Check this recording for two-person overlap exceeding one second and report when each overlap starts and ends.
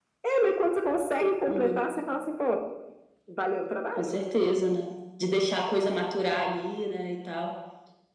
none

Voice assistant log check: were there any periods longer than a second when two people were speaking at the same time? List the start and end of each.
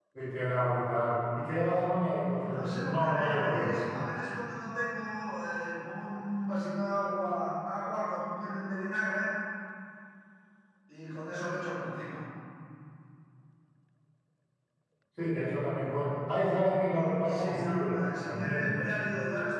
2.5-3.8, 16.9-18.7

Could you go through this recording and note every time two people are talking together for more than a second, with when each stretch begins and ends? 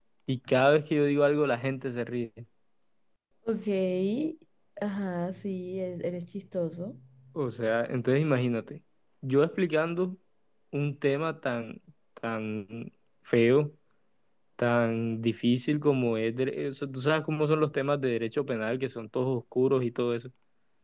none

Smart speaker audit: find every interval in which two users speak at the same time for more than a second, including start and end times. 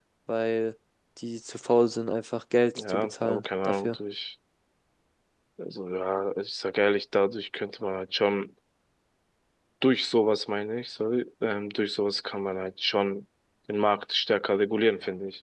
2.8-4.0

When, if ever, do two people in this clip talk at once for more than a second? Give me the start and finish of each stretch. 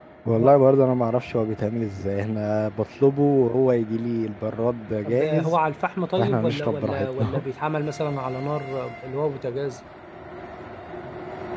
6.2-7.4

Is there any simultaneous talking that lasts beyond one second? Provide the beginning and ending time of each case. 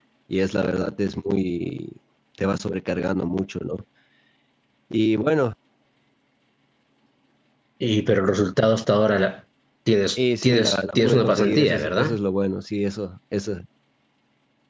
10.2-12.2

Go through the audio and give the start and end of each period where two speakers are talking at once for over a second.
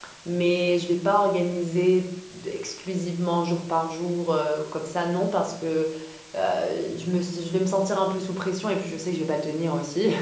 none

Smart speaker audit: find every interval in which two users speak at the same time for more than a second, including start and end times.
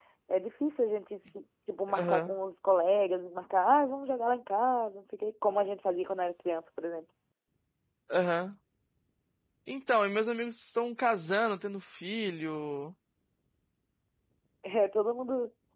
none

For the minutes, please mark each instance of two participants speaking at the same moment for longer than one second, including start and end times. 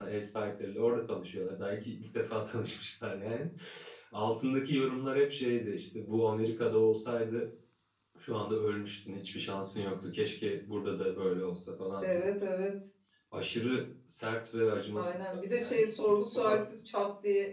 15.0-16.6

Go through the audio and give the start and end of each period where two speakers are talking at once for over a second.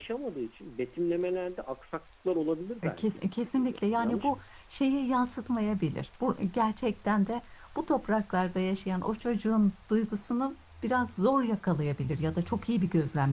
2.8-4.3

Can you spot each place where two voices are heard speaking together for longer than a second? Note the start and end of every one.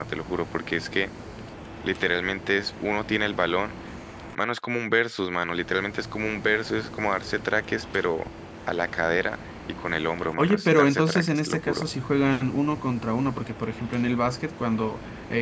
10.4-11.9

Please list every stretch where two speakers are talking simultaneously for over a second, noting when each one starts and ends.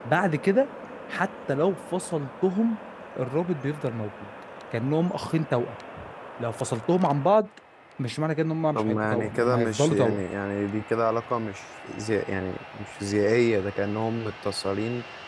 8.7-10.2

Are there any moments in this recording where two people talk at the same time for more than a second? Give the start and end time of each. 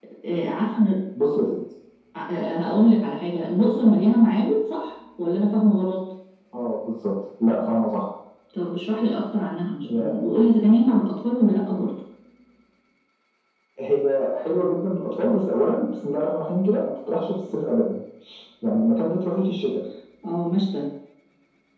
none

